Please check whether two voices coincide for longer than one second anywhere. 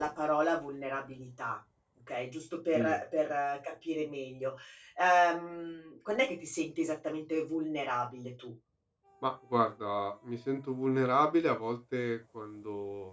No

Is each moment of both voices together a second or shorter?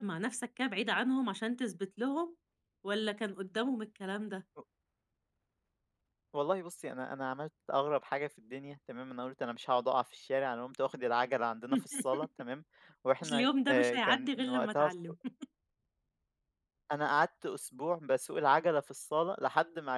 No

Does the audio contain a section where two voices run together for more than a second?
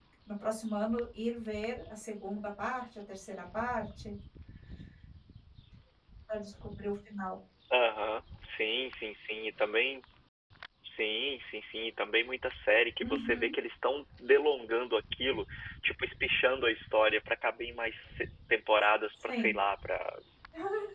No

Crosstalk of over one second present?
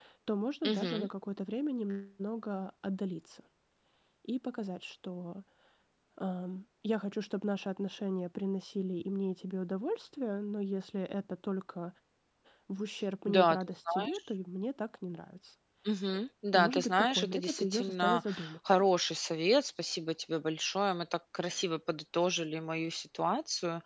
Yes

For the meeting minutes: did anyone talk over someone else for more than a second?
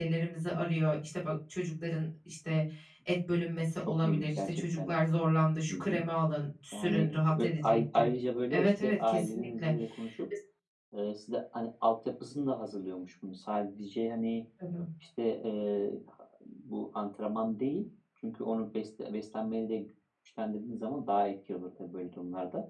Yes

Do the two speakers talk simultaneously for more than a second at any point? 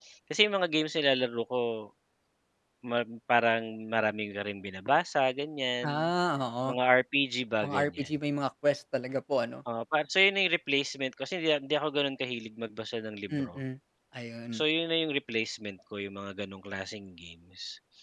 No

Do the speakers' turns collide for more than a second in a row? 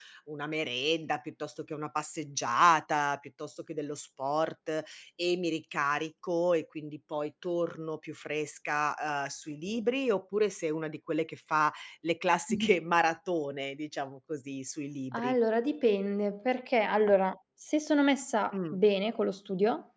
No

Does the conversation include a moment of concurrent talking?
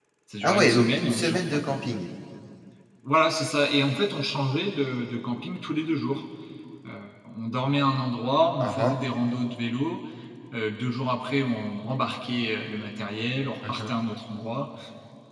Yes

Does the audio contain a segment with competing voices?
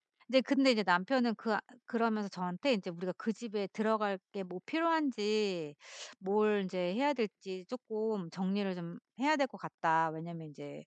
No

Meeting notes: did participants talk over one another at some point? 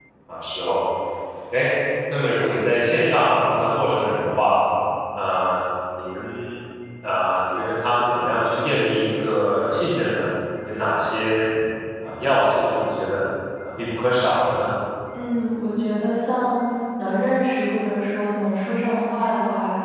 No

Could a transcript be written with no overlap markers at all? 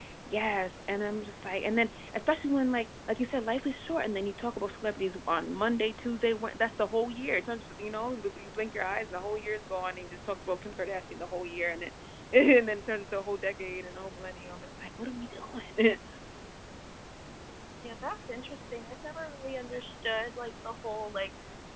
Yes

